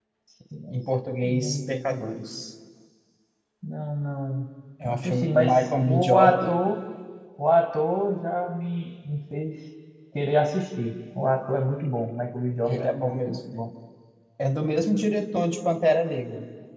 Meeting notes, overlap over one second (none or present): present